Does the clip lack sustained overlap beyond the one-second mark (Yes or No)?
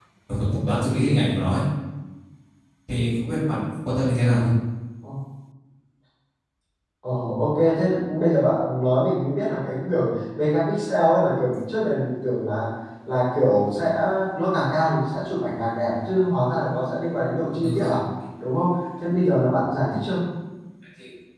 Yes